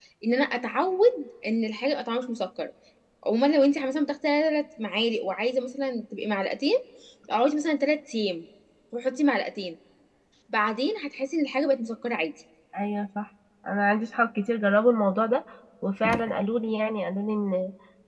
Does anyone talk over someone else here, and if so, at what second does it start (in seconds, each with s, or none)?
none